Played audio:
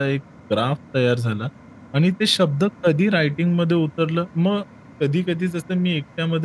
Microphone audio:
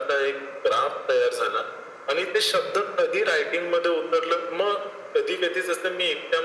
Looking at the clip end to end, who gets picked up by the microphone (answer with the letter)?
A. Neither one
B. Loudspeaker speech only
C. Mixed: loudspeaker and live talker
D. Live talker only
B